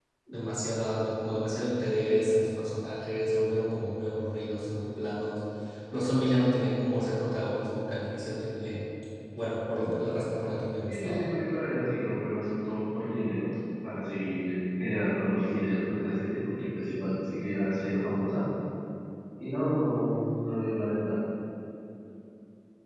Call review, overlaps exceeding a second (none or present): none